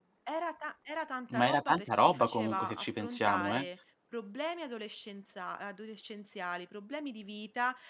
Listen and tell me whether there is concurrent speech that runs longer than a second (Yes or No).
Yes